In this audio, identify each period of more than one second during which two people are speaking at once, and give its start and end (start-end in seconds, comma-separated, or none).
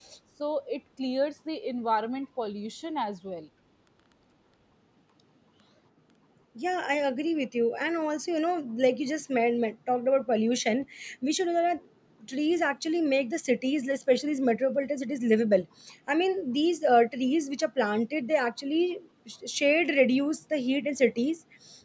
none